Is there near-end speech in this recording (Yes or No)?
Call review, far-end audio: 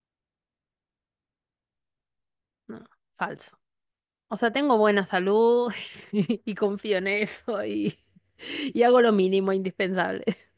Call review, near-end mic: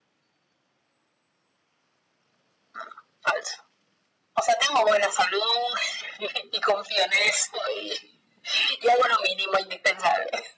No